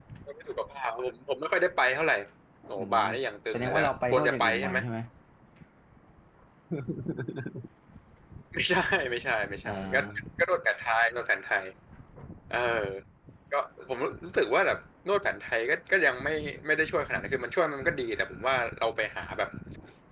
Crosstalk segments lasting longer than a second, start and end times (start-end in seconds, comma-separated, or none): 3.5-4.8